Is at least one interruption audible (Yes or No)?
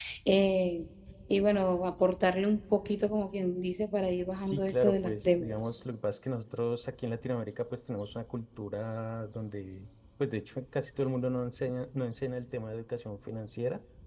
Yes